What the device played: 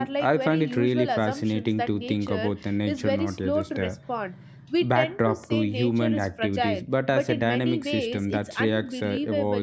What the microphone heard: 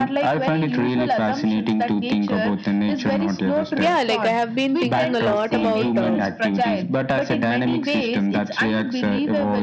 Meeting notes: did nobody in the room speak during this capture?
No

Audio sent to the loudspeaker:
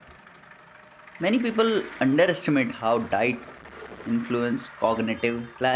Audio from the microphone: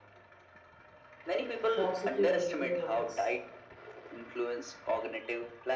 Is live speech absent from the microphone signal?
No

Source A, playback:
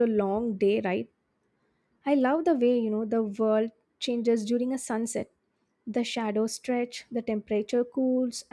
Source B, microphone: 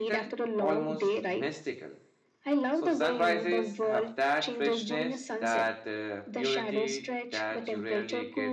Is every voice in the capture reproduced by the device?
No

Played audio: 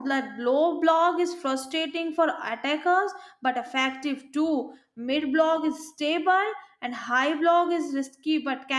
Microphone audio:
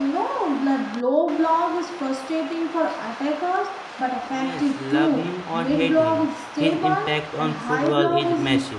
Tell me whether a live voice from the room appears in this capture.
Yes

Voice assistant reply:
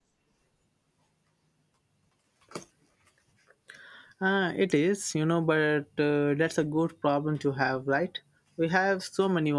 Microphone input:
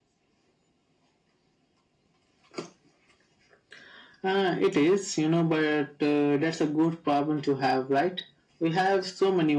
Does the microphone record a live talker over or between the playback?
No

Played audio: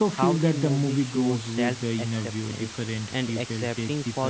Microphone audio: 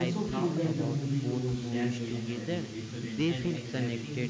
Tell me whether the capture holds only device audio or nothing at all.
No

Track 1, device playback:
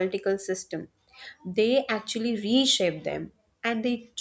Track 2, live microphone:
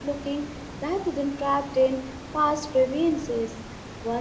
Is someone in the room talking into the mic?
Yes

